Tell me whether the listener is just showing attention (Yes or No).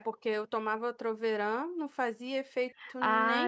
No